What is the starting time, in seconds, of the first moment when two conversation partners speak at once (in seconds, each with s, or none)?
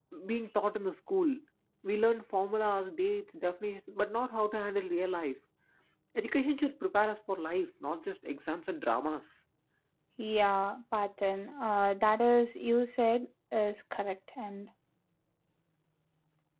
none